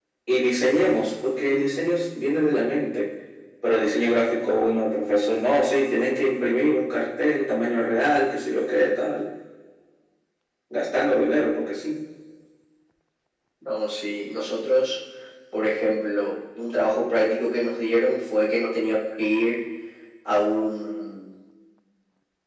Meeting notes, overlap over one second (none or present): none